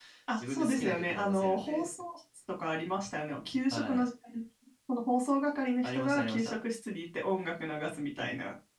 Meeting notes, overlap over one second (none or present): present